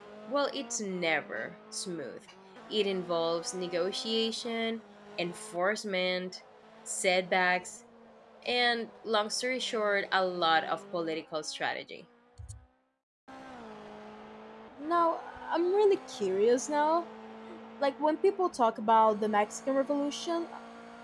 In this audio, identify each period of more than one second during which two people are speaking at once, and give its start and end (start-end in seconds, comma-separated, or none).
none